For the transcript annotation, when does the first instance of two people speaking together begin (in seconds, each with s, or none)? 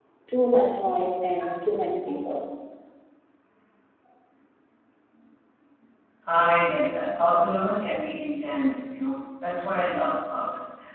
none